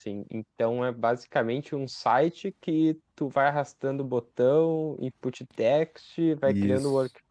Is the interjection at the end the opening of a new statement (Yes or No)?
No